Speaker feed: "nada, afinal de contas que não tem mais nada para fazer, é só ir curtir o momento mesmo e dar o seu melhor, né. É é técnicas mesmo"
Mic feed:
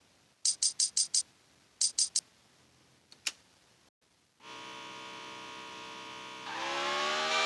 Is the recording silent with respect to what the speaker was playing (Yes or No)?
Yes